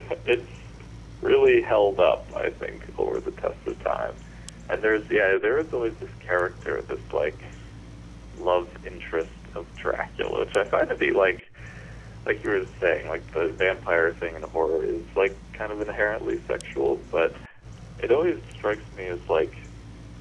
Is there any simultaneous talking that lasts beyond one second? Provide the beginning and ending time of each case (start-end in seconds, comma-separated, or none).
none